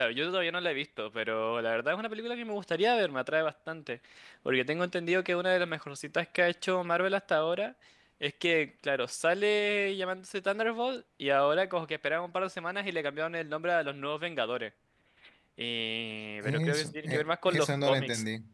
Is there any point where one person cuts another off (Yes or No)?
Yes